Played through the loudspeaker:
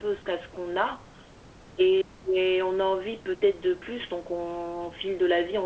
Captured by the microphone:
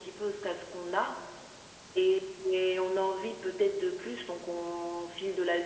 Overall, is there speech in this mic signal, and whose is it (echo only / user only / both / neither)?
echo only